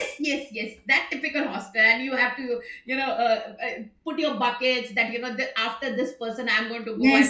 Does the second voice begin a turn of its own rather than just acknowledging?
Yes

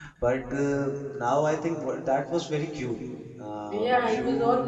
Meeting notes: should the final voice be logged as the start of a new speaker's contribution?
Yes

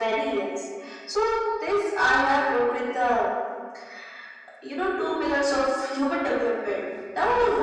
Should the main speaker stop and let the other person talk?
No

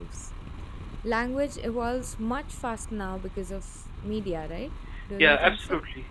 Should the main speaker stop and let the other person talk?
Yes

